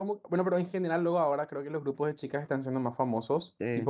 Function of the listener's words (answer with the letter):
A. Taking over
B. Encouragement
B